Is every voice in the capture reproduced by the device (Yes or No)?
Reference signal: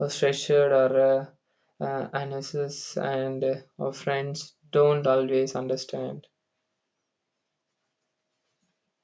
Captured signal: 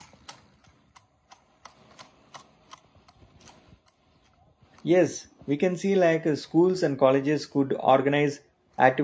No